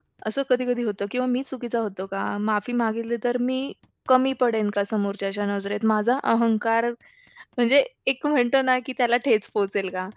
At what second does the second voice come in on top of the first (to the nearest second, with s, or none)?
none